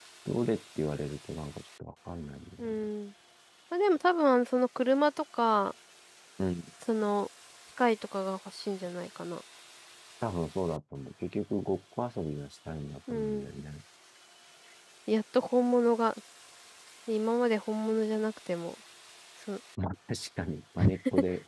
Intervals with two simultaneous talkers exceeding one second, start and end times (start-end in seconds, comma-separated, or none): none